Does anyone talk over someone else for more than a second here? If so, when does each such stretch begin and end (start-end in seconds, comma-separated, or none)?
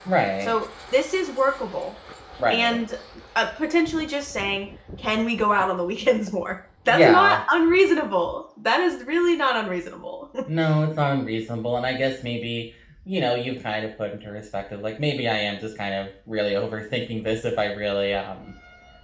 none